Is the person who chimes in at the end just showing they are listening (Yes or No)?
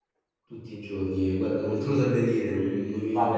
No